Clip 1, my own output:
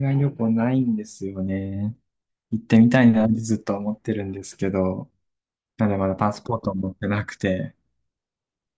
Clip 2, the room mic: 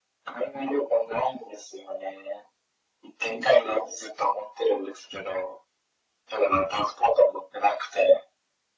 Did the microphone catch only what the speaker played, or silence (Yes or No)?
Yes